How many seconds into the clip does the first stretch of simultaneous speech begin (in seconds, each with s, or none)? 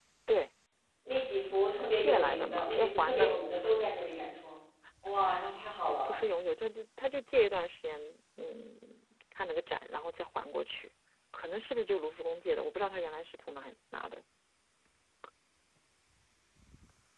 1.7 s